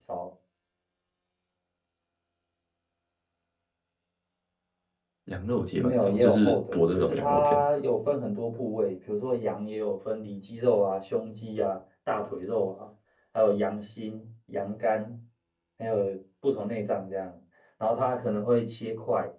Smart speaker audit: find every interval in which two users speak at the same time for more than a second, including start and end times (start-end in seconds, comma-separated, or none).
5.8-7.6